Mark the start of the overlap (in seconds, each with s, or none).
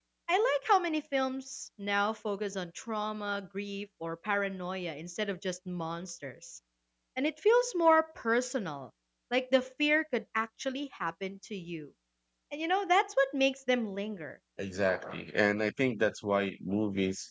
none